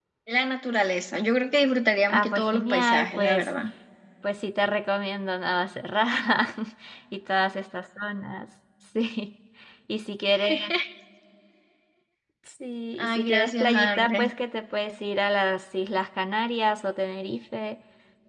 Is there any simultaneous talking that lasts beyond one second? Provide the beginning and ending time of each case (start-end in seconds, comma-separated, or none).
2.1-3.5, 13.0-14.3